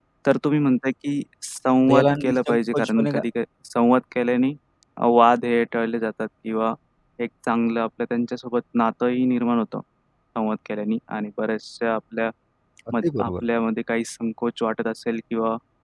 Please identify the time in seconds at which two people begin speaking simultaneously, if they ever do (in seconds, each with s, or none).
1.9 s